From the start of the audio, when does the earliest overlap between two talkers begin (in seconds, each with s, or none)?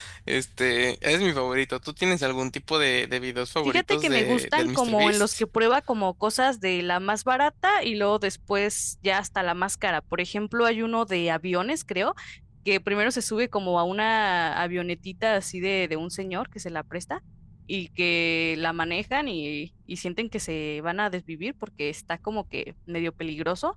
3.6 s